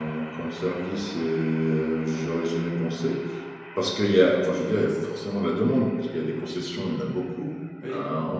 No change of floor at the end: Yes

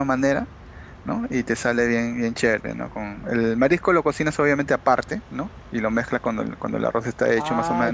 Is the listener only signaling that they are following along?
No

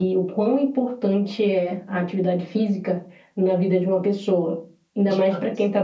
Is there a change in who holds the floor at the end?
No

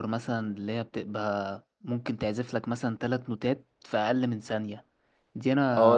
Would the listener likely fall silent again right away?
No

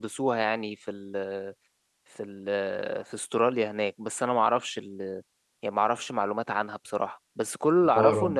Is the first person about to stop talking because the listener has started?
No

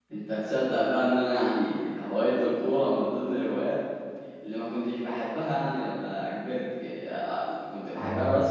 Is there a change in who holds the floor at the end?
No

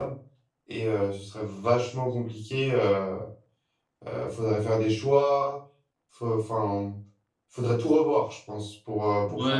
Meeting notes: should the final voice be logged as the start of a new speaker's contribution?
Yes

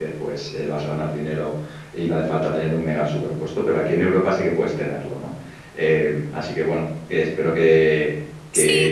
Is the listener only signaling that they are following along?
No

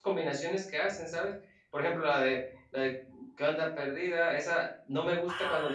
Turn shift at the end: No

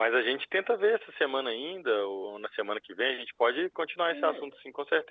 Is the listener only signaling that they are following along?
No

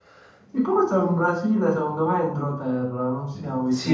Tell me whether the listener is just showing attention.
No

